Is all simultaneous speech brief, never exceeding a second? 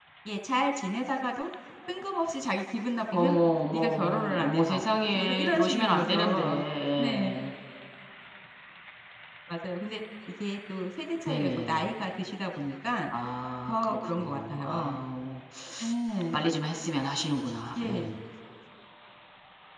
No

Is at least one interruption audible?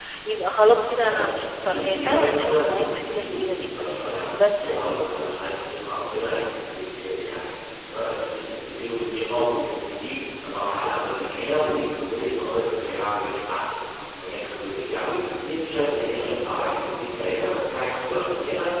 Yes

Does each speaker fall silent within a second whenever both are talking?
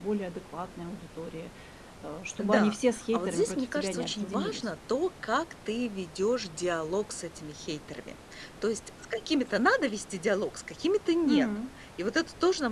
No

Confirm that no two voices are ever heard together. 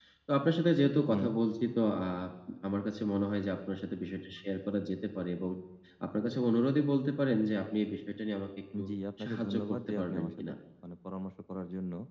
No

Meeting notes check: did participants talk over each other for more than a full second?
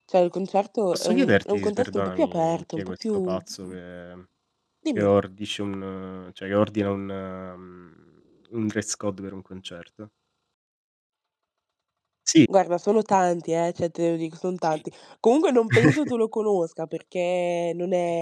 Yes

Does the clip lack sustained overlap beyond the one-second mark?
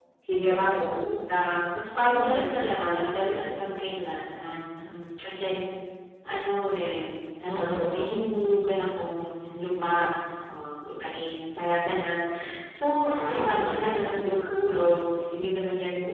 No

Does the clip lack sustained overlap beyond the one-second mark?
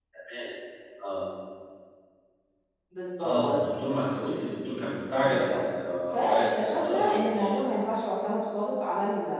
No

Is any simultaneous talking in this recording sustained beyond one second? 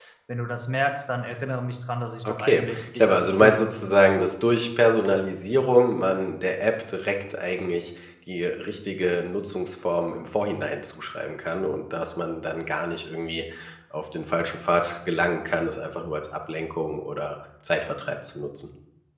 Yes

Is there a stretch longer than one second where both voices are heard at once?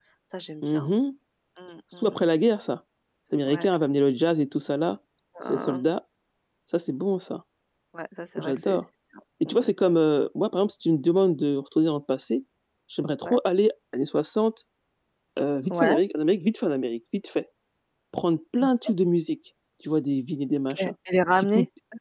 No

